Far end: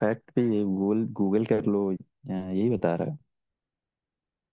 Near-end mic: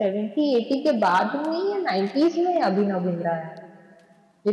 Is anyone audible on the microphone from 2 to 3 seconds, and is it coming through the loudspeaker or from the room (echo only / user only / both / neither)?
user only